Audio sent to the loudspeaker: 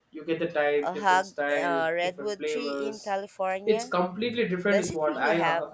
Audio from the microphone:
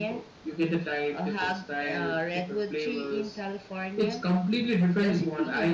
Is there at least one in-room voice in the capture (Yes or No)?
No